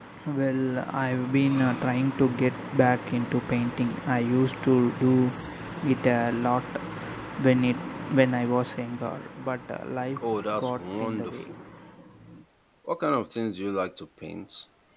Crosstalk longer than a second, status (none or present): present